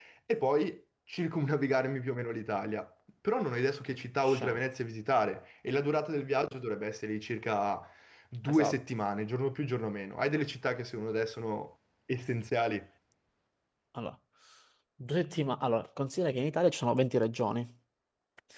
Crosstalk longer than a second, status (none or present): none